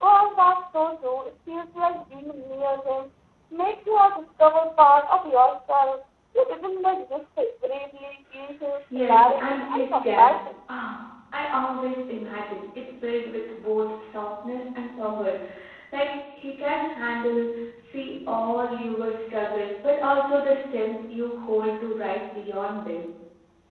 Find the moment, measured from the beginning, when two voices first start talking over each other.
8.9 s

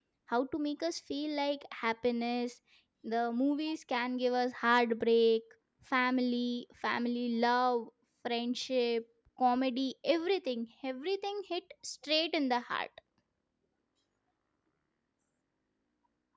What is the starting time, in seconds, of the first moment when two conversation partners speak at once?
none

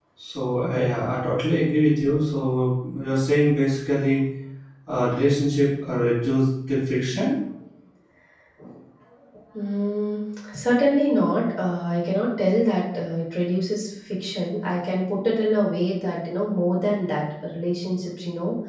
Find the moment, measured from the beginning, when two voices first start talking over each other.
none

